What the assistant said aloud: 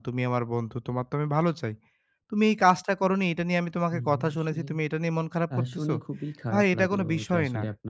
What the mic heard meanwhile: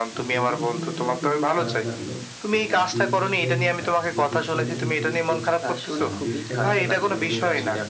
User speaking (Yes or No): Yes